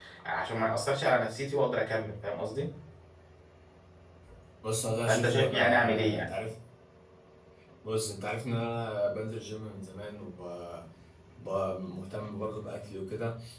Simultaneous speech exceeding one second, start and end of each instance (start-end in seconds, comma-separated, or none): 5.1-6.3